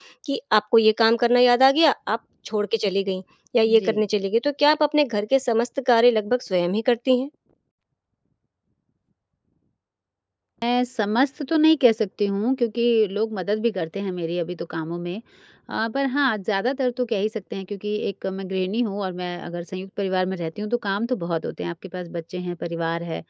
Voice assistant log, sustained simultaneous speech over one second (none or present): none